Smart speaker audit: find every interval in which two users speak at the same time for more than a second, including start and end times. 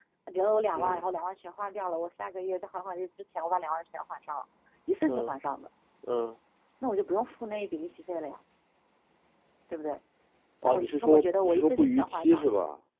10.6-12.5

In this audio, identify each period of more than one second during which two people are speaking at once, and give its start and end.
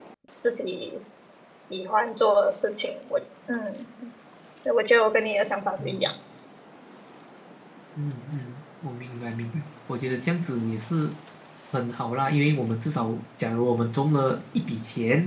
none

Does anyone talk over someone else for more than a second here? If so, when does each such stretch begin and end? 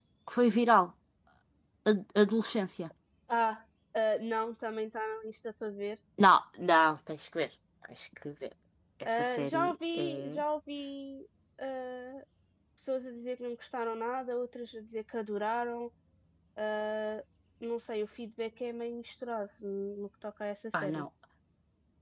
9.1-10.4

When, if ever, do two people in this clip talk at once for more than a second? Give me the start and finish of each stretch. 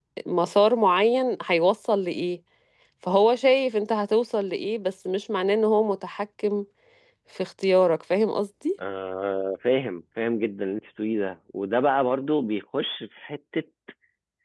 none

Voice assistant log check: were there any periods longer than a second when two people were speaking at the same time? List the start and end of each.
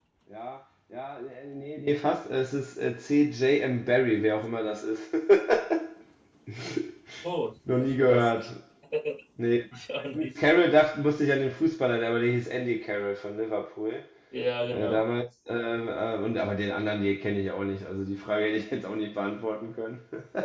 none

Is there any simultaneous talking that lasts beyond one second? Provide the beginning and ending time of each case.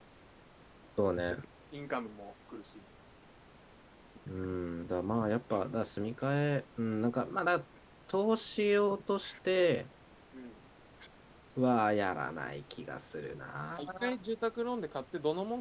none

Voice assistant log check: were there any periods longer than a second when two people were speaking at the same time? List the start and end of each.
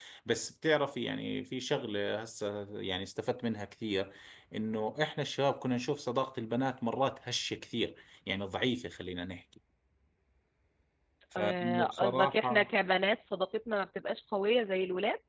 11.4-12.7

